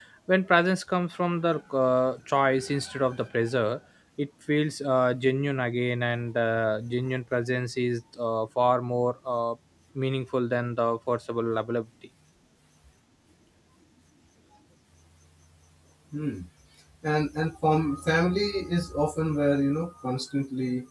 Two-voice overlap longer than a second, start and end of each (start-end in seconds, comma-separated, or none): none